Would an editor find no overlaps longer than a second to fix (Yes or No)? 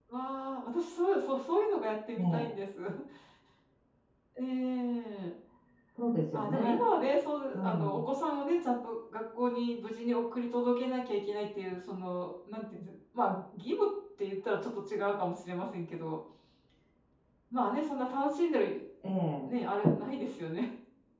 Yes